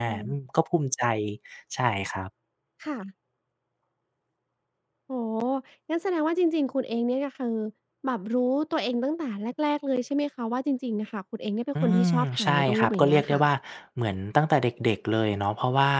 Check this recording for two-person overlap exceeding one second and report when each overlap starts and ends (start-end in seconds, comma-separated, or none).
11.8-13.4